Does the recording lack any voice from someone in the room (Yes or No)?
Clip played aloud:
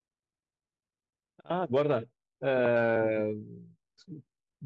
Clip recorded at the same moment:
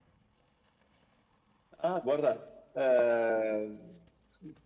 Yes